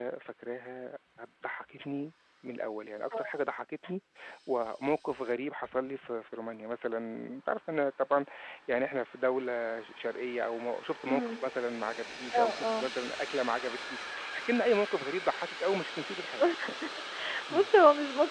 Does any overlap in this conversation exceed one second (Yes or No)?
No